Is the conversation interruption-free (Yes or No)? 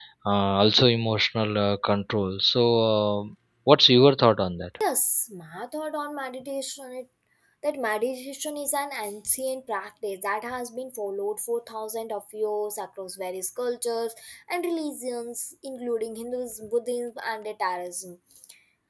Yes